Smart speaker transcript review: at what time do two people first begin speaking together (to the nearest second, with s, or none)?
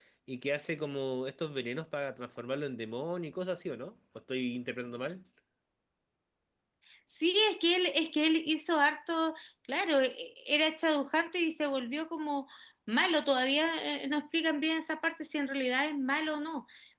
none